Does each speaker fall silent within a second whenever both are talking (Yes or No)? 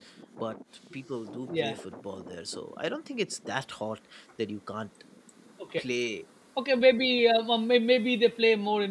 Yes